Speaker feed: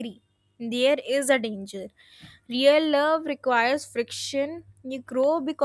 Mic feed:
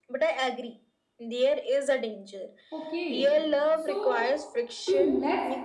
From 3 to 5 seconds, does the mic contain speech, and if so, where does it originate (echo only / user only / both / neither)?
both